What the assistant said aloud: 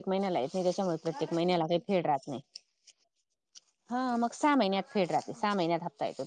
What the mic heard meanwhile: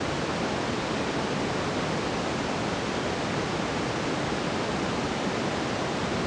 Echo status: none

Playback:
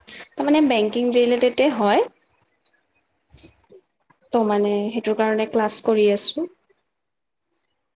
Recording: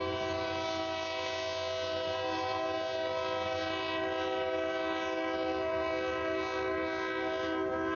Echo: none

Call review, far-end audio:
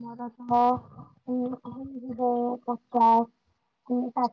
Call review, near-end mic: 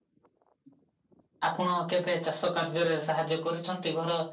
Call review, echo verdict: none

